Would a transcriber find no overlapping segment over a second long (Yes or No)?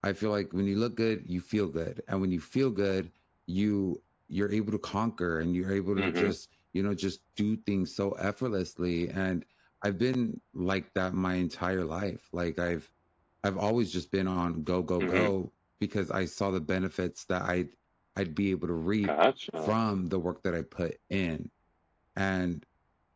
Yes